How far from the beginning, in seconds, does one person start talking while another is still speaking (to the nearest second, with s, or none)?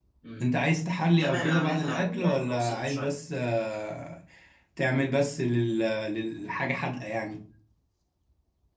1 s